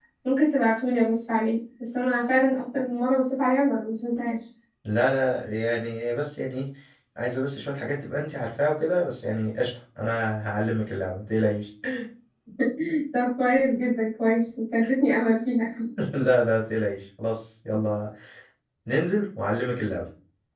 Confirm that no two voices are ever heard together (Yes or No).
Yes